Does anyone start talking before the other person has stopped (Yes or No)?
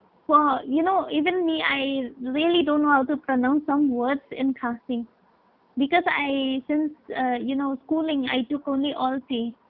No